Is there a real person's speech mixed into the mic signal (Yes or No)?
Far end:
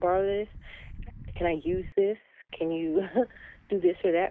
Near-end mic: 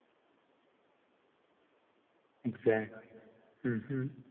Yes